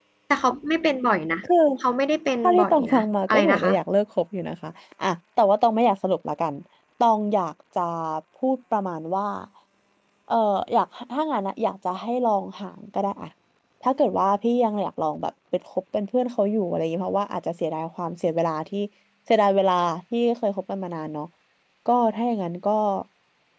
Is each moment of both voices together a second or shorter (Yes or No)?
No